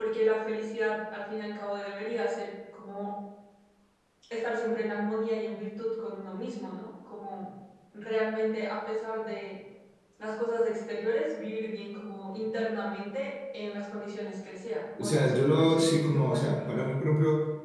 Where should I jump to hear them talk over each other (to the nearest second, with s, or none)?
15 s